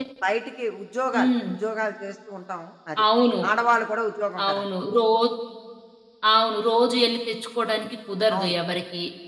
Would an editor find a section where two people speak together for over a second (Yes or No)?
No